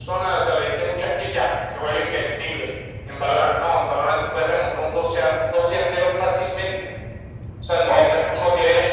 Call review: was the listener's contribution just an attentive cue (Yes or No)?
Yes